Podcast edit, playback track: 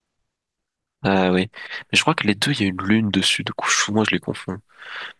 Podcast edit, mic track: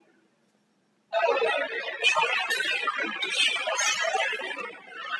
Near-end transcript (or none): none